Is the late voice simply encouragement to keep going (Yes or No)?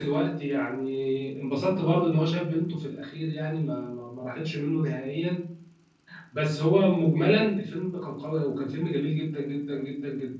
No